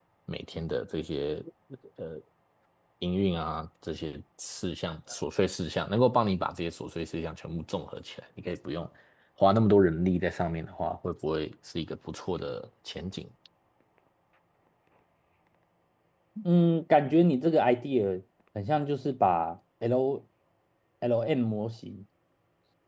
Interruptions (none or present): none